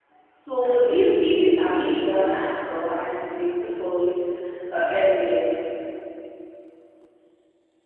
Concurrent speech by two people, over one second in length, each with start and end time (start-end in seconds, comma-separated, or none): 0.6-2.0